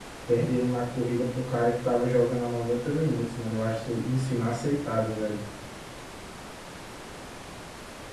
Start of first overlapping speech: none

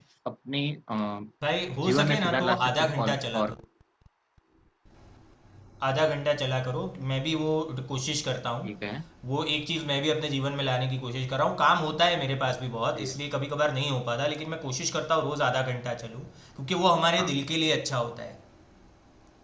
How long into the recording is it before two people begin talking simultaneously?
1.8 s

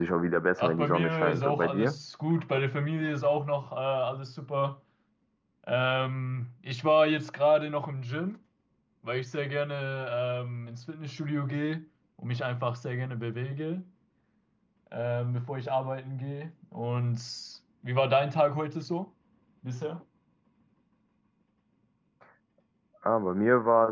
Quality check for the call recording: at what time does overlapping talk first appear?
0.6 s

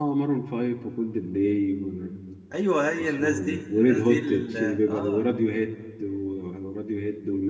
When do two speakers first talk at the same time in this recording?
3.0 s

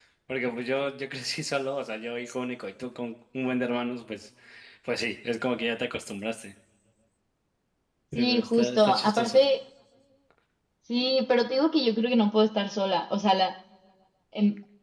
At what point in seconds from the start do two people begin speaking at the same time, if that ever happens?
8.2 s

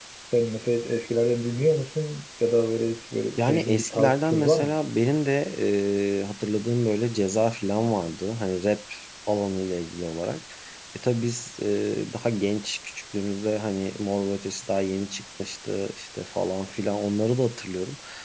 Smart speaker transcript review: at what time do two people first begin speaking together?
3.4 s

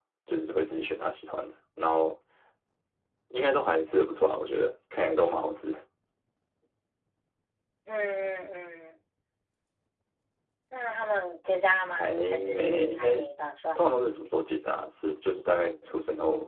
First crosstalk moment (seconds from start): 11.9 s

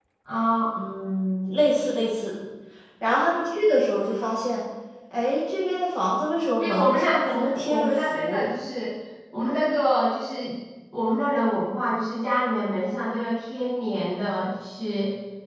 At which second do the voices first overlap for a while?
6.6 s

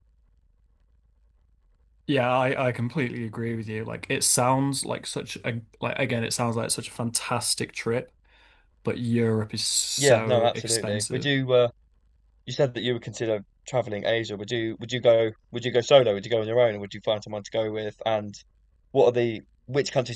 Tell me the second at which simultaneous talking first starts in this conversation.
10.0 s

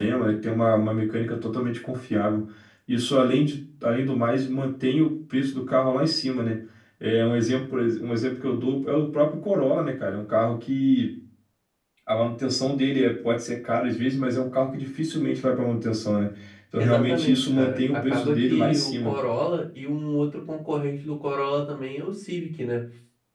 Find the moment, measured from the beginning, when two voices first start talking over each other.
16.8 s

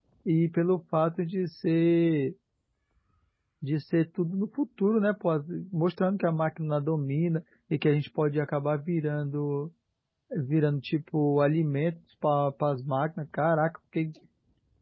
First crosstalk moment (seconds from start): none

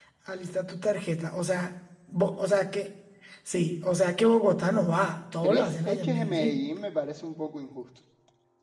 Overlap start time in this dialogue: 5.2 s

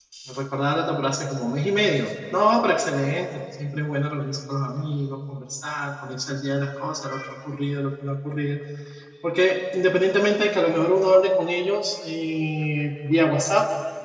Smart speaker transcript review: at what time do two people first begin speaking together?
none

